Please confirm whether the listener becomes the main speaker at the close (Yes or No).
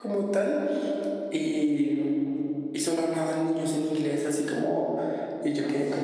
No